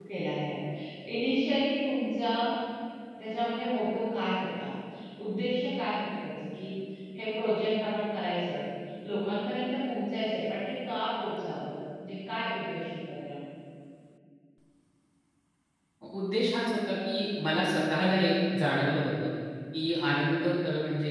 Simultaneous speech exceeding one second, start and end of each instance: none

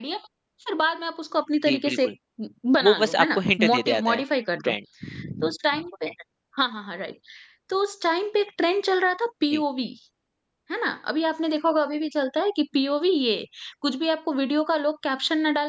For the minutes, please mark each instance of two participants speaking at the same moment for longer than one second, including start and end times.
2.8-4.2

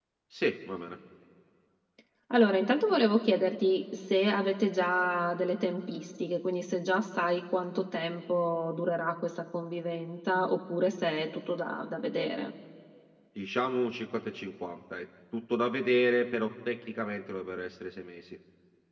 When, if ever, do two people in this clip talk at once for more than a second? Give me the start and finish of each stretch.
none

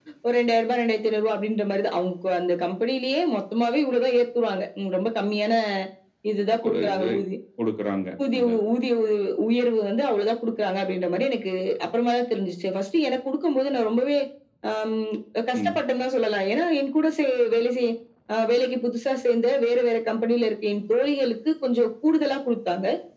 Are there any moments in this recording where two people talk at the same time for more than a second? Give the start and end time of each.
none

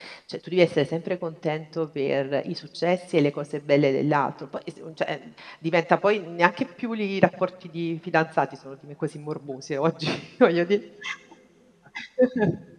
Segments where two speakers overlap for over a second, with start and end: none

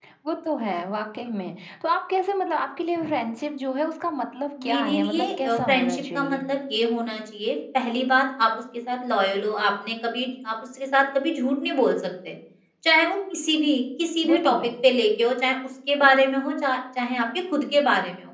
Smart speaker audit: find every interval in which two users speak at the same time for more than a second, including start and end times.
4.6-6.4

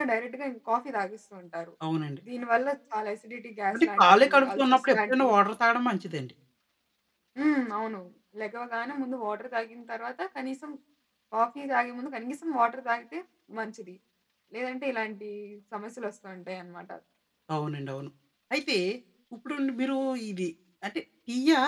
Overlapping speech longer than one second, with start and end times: 3.7-5.4

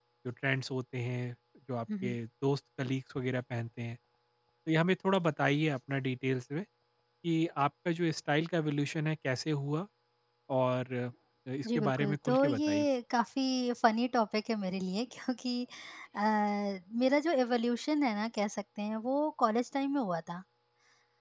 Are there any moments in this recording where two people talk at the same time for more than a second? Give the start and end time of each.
11.6-12.8

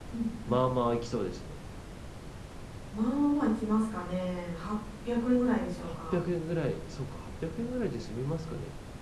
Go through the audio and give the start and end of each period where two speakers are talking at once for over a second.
none

